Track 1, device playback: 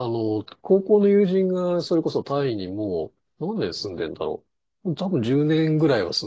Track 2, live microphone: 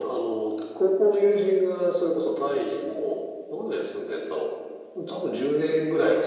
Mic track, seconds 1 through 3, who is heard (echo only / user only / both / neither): echo only